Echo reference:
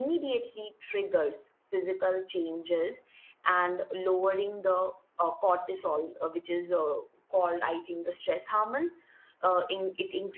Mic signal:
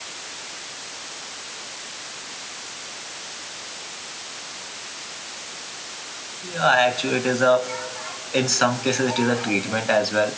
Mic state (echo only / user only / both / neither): user only